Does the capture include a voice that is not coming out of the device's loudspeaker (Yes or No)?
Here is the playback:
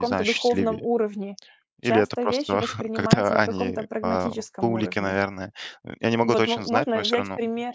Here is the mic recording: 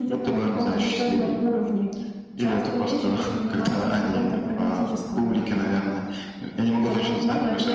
No